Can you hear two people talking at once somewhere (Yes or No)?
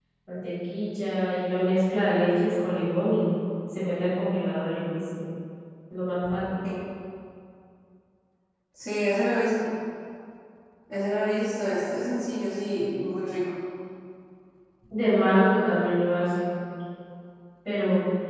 No